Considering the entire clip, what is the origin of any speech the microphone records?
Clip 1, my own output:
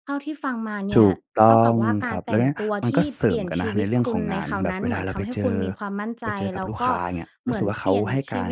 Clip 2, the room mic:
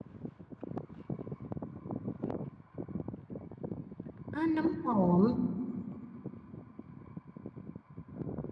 user only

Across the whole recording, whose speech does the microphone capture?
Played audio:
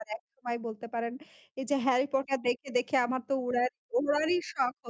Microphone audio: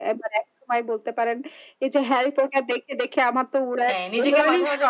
both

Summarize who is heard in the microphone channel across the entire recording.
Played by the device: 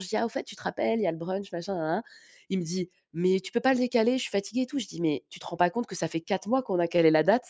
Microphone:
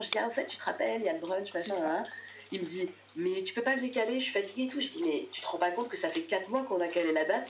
both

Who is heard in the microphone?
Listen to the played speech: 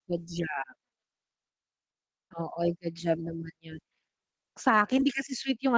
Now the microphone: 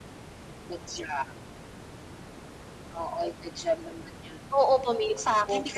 both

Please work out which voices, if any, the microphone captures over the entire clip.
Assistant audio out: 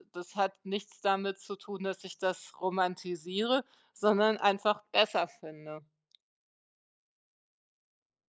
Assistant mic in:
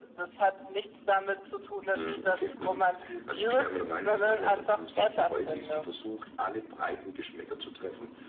both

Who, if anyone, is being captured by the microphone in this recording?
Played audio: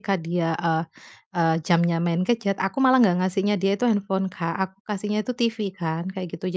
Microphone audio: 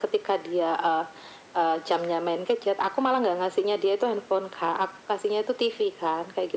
echo only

